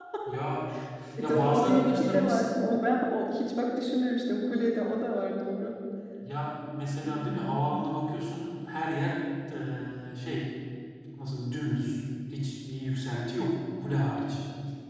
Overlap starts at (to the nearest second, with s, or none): 1 s